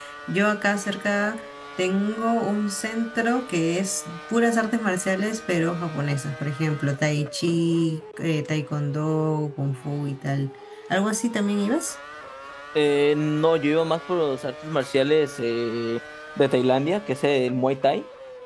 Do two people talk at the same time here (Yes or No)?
No